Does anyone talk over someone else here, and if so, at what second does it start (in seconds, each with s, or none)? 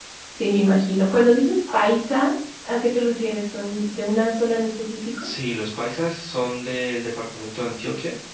none